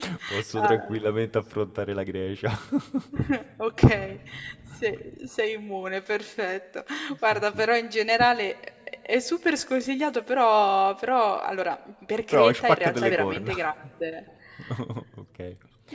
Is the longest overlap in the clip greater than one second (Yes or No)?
Yes